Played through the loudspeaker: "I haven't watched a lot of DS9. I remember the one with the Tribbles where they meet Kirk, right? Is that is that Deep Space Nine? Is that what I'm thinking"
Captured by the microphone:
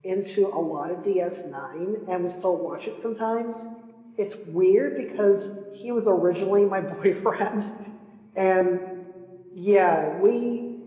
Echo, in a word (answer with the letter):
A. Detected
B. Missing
B